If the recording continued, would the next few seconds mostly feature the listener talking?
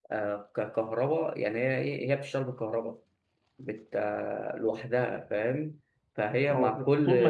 Yes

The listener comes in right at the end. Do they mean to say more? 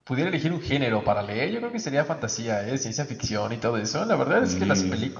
No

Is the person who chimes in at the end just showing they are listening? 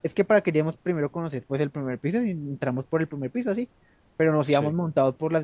Yes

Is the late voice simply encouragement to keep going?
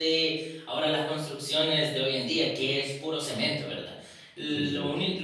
Yes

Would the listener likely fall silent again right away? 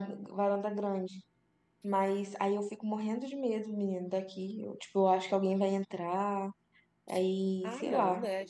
No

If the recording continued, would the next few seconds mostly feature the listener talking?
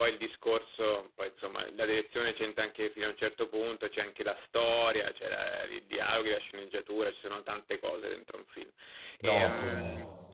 No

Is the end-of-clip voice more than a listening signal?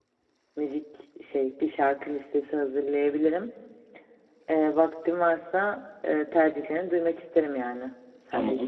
Yes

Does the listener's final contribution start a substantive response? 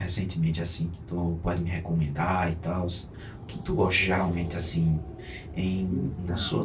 No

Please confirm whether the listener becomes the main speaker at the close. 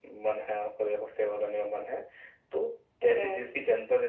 No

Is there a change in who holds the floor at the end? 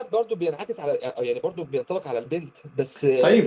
Yes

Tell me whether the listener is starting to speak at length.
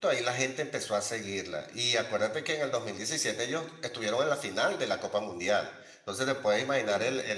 No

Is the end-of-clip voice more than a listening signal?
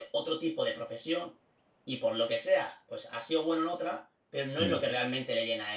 No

